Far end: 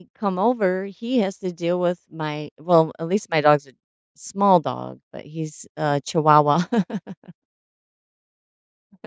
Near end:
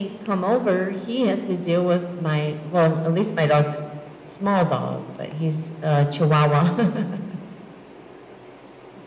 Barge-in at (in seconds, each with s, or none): none